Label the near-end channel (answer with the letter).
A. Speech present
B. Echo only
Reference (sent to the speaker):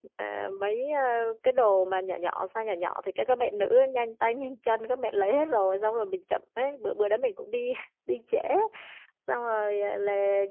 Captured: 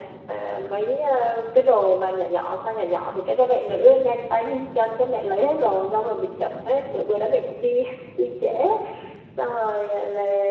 B